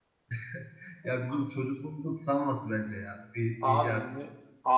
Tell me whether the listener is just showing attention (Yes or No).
No